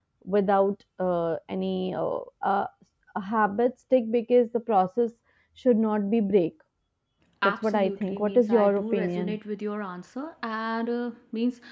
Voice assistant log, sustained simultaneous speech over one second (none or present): present